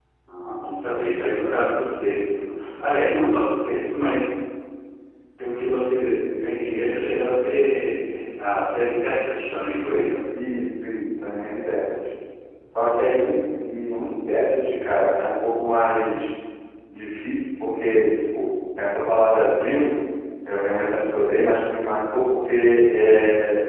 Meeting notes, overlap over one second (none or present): none